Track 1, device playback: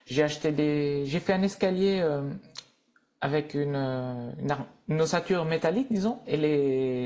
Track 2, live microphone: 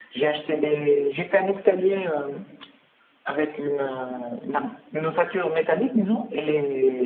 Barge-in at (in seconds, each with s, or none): none